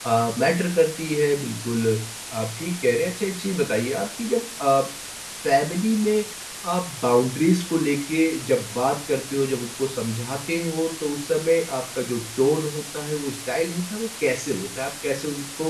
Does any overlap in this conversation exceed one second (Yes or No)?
No